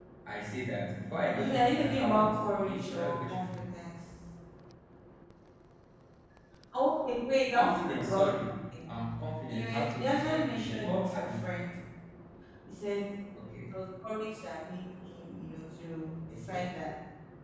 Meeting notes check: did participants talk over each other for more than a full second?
Yes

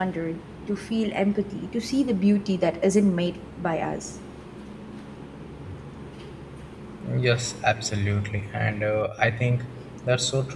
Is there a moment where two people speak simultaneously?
No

